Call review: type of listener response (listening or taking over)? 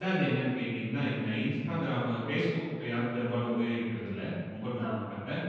listening